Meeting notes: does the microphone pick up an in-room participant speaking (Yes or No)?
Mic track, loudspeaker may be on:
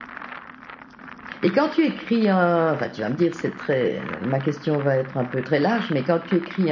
Yes